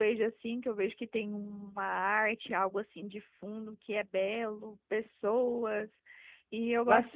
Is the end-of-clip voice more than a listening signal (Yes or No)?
Yes